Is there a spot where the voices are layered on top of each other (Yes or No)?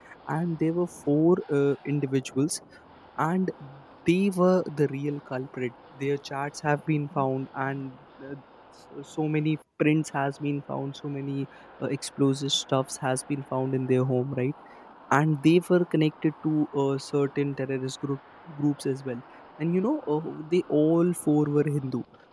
No